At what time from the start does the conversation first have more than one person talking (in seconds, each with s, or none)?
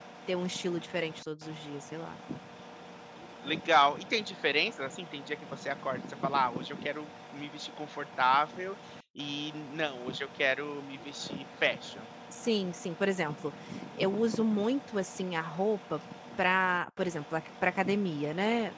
none